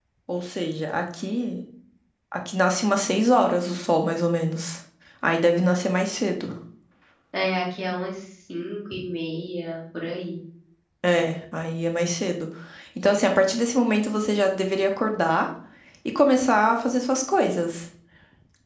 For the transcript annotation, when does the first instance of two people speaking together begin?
none

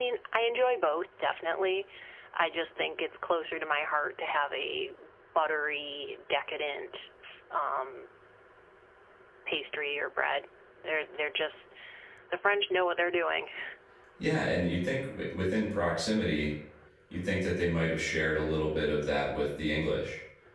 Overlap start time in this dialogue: none

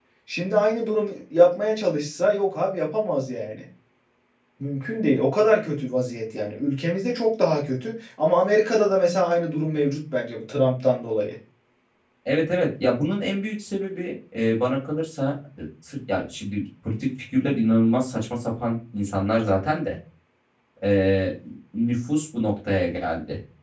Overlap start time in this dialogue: none

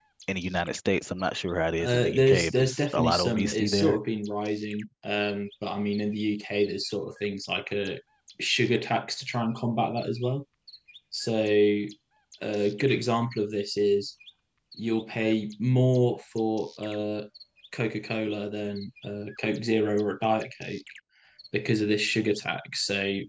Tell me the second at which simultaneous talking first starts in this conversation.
2 s

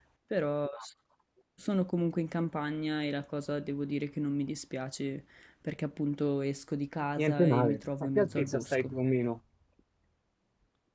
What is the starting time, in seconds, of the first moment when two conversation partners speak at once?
7 s

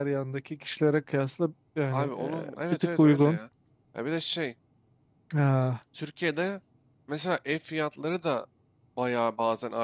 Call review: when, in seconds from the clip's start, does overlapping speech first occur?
2 s

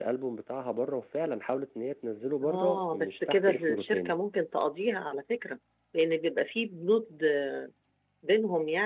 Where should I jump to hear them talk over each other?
2 s

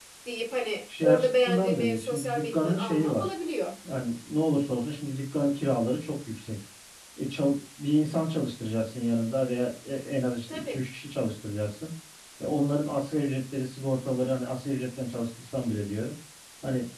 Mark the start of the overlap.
1 s

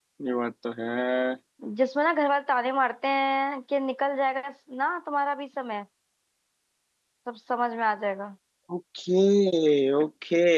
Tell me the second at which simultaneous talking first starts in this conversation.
none

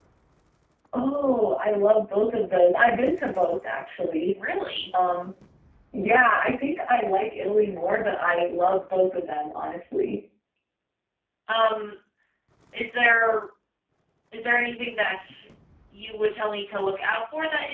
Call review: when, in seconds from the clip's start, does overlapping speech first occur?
none

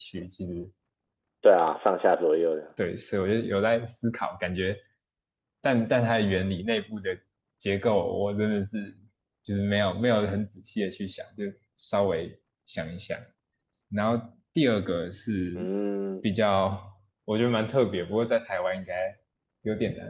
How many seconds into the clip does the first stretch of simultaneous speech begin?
none

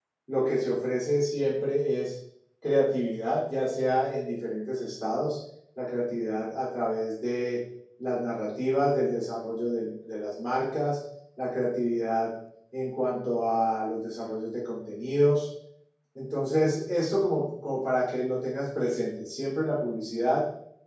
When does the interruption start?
none

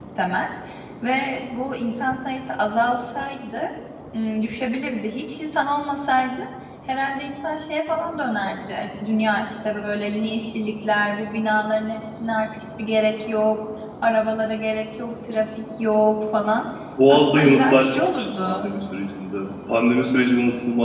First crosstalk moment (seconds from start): 17 s

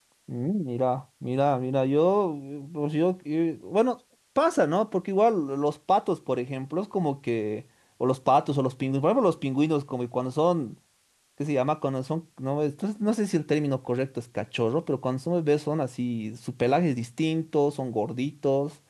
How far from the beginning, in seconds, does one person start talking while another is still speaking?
none

